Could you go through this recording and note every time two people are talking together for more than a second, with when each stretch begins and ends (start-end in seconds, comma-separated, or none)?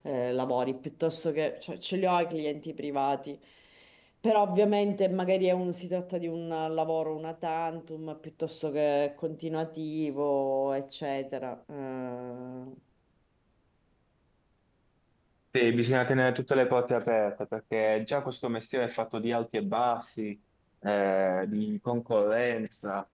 none